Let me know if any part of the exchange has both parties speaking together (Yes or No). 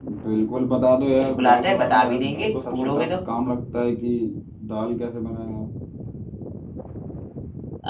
Yes